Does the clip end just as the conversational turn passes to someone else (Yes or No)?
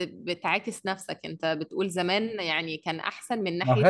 Yes